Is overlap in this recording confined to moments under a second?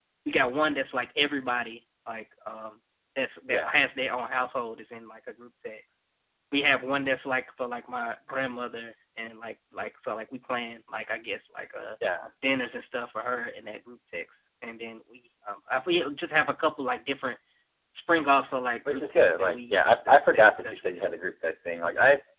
No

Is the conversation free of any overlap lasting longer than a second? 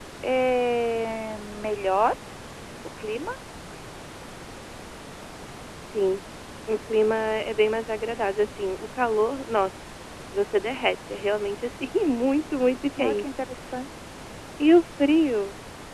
Yes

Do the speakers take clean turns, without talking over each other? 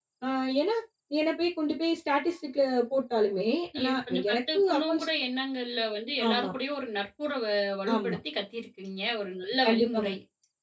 No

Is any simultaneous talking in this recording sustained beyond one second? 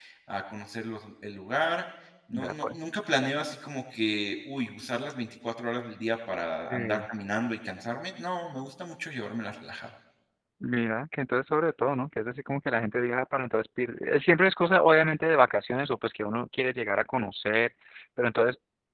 No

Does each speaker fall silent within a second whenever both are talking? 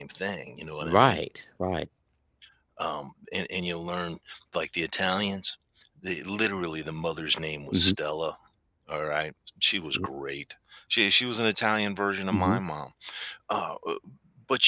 Yes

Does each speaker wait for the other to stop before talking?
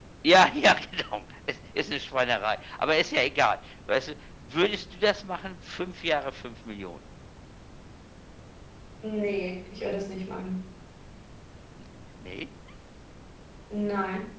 Yes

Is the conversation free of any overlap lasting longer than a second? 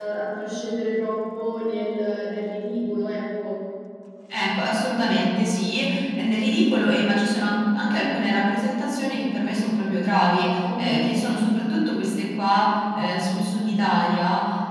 Yes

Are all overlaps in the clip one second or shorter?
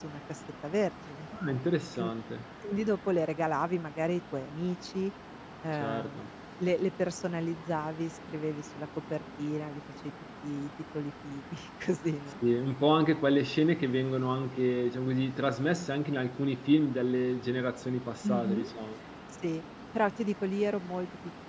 Yes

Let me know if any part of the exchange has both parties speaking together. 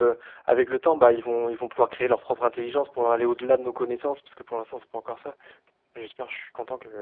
No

